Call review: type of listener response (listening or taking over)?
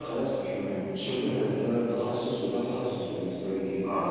taking over